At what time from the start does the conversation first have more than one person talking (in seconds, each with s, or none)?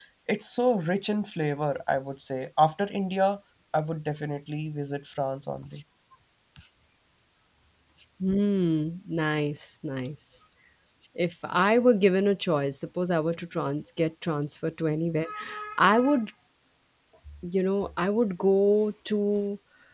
none